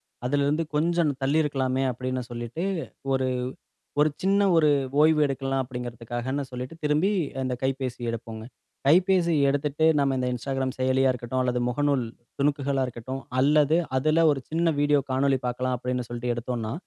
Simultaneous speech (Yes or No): No